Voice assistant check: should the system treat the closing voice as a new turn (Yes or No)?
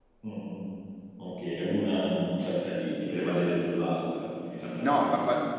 Yes